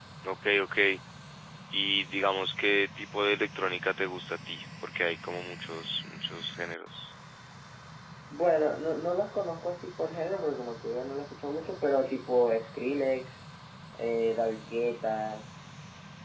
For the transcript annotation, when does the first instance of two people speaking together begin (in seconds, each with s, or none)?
none